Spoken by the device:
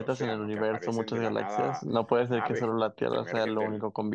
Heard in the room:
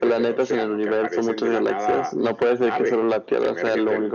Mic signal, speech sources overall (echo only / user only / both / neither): echo only